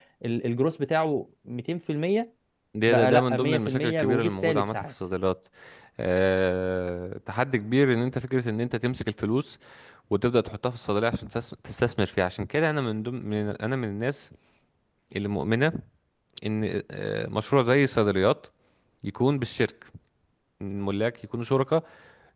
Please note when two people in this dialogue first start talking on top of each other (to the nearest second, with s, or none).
3 s